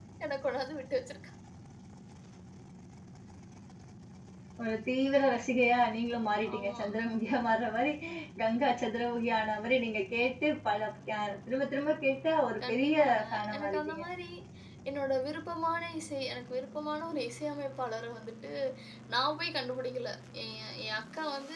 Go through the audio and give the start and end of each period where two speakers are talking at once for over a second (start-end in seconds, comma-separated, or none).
12.7-14.0